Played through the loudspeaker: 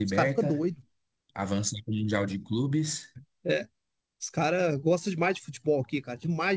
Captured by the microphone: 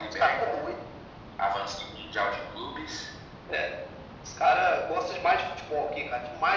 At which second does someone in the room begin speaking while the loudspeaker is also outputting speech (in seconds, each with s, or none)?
none